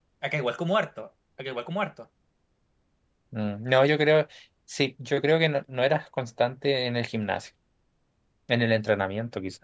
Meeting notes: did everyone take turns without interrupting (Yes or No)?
Yes